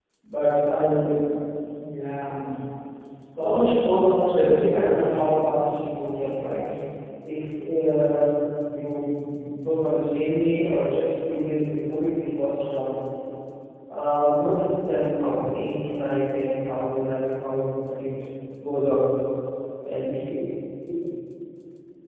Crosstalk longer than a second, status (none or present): present